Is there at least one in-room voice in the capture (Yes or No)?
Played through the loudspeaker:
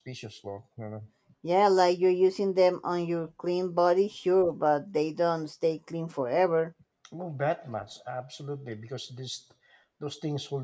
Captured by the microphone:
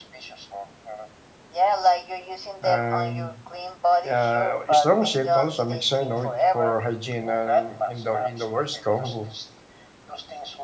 Yes